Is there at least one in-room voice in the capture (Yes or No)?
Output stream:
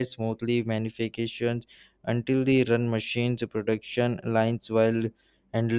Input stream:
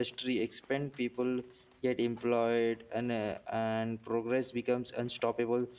Yes